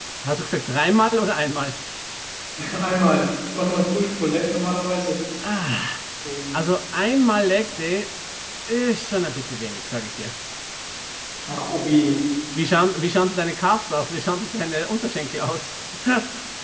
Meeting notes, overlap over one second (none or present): none